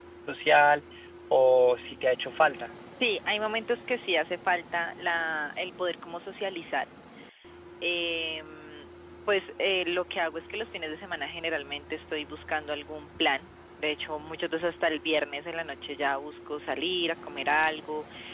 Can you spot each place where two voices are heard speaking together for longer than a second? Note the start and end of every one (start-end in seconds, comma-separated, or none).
none